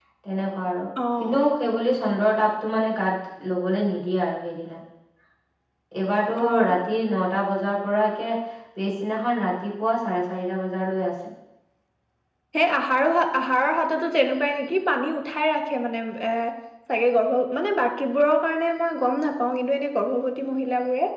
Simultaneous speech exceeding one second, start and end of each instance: none

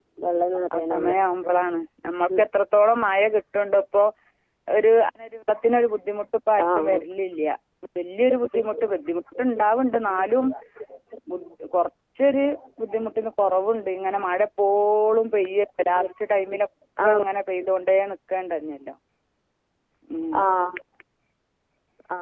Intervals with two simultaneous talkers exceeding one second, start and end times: none

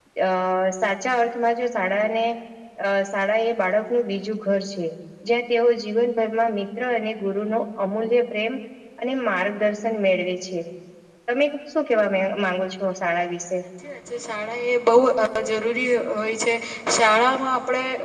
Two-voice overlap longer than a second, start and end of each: none

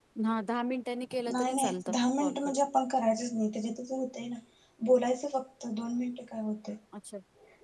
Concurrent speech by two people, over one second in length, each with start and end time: 1.3-2.6

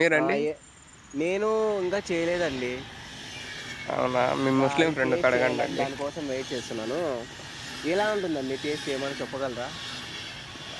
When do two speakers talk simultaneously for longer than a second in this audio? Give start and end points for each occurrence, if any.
4.6-5.8

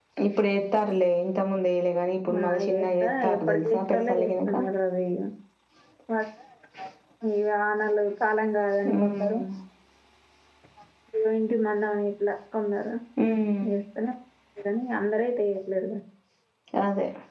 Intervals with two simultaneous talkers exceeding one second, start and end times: 2.3-4.5

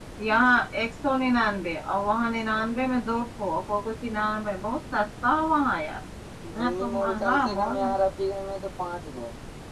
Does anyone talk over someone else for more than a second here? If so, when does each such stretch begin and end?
6.6-7.9

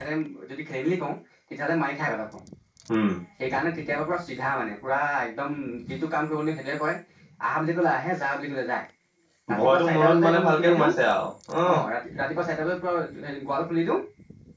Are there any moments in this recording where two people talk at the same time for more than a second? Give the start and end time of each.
9.6-10.9

